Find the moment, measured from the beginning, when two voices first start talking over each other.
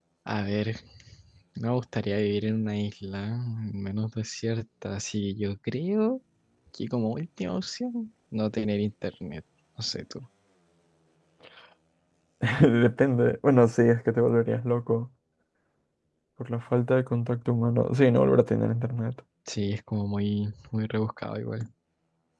none

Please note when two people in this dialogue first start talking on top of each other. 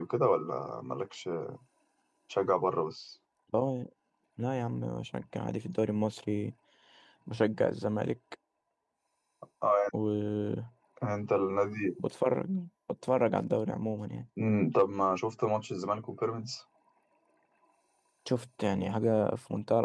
none

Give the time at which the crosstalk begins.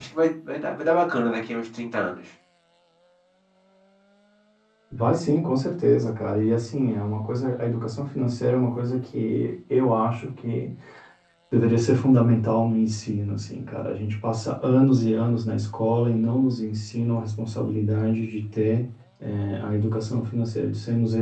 none

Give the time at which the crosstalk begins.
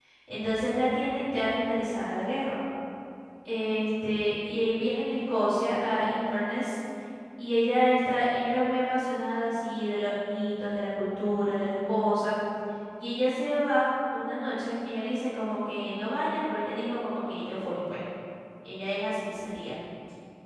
none

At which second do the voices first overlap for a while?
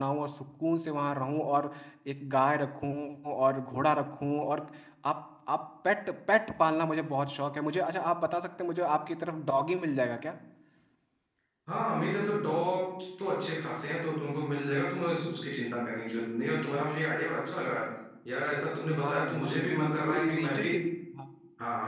19.0 s

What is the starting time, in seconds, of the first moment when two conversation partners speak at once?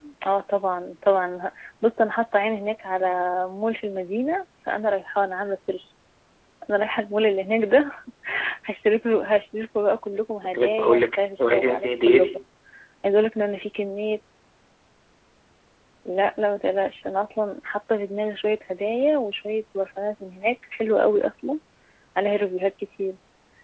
10.4 s

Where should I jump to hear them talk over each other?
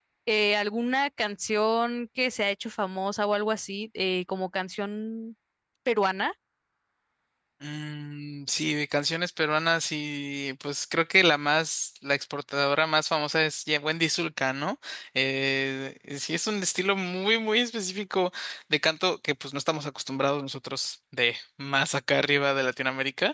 none

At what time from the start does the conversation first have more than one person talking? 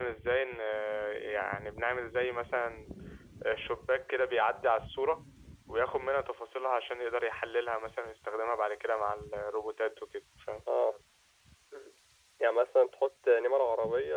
none

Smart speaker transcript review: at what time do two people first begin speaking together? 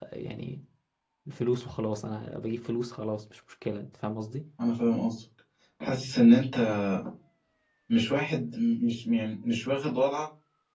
none

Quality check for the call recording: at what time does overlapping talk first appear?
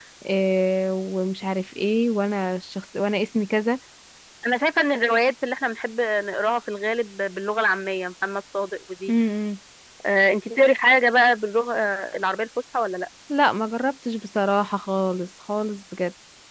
none

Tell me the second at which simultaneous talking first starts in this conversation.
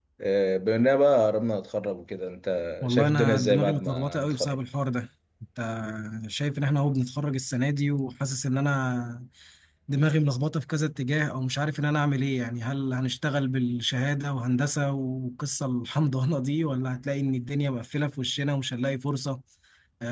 2.8 s

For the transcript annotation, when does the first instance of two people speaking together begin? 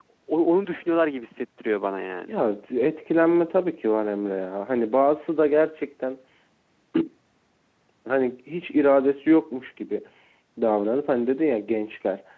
none

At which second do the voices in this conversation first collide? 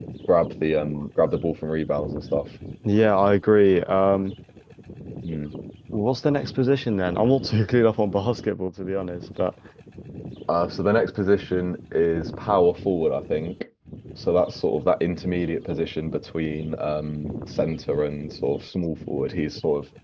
none

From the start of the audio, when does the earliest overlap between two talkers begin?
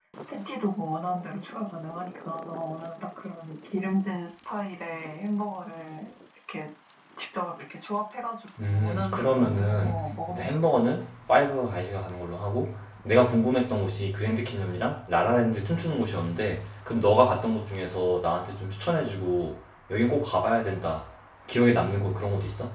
8.6 s

